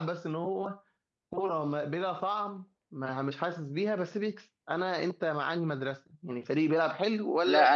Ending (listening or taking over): taking over